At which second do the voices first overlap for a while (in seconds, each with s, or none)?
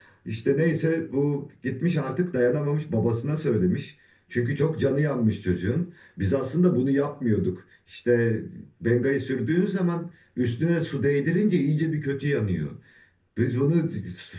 none